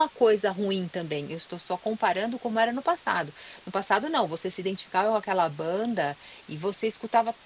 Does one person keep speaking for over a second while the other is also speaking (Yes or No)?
No